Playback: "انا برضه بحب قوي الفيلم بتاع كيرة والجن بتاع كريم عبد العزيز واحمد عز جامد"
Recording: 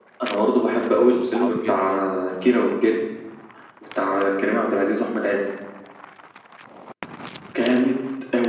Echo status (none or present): present